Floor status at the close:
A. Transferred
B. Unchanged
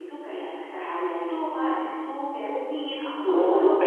A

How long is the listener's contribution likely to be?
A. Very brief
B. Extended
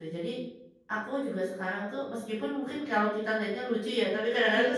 A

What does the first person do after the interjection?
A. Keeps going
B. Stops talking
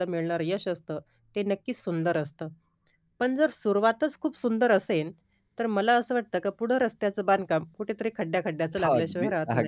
B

